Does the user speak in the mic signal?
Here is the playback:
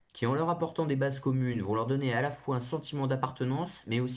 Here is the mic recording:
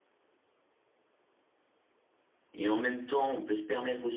Yes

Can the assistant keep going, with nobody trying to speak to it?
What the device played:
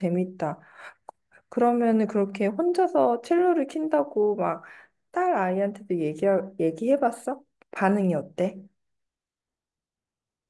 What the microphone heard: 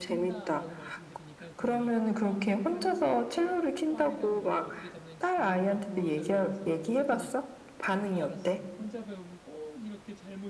No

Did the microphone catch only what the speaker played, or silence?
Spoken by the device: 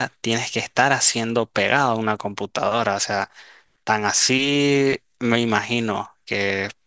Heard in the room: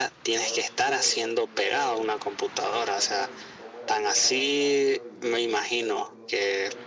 No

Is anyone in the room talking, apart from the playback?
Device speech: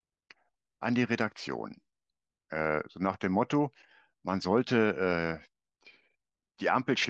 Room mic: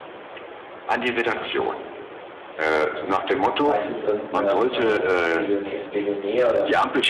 Yes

